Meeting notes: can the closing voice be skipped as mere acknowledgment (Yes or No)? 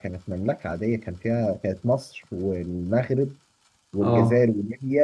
Yes